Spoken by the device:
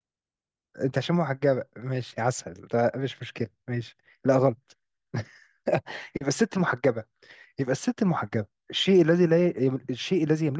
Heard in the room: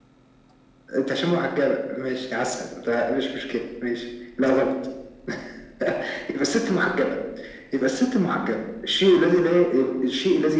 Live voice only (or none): none